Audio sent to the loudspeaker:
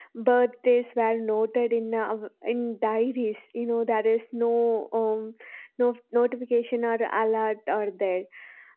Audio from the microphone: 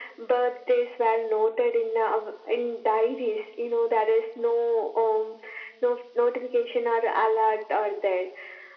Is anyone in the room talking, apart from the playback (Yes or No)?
No